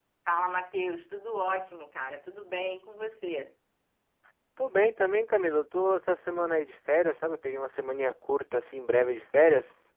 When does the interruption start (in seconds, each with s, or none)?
none